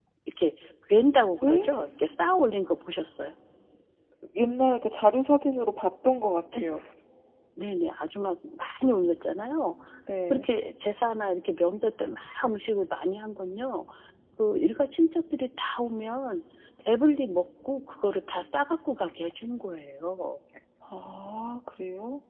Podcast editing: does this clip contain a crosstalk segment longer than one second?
No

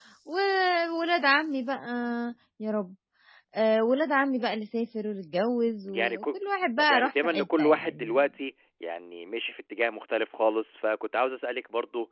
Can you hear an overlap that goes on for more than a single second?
Yes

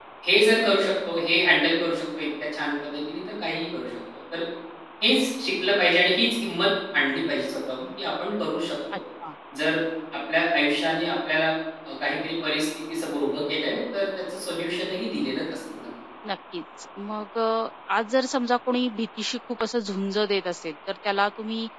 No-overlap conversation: Yes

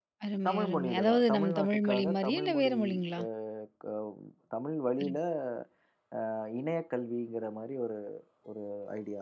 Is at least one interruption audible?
Yes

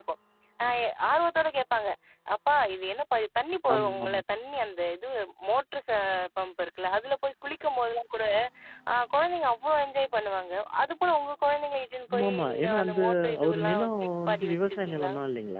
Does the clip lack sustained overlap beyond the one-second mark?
No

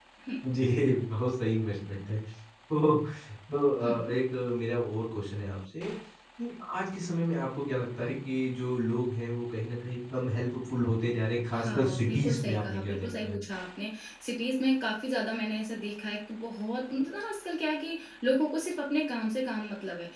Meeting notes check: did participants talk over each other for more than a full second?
Yes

